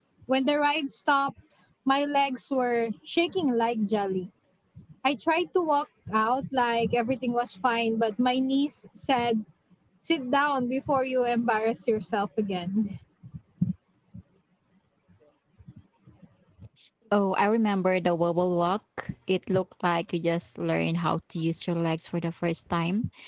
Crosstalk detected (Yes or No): No